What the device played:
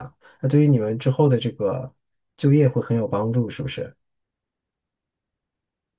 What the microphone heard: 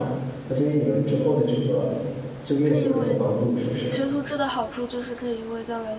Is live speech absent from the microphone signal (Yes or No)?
No